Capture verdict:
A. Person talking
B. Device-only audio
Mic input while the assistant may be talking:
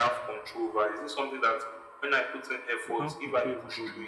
A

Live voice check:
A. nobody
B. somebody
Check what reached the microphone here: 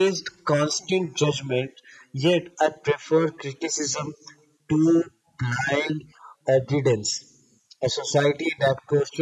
A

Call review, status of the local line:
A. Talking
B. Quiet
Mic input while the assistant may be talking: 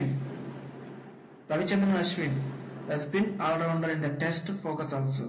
B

